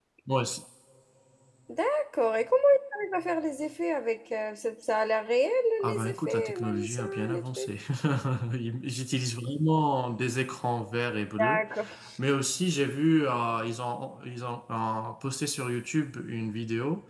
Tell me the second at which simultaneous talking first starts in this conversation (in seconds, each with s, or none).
5.9 s